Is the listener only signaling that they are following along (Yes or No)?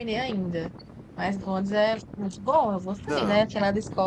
Yes